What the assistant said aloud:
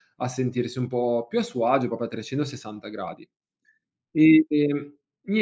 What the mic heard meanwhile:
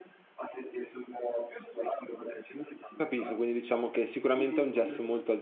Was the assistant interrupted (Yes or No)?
Yes